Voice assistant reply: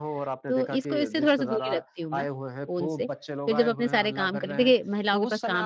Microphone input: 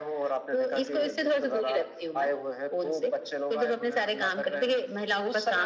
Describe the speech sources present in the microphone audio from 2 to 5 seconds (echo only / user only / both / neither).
echo only